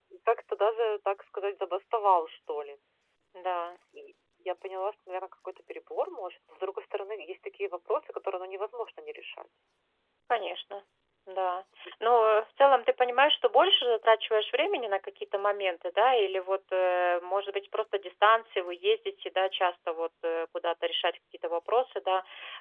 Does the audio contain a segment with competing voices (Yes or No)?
No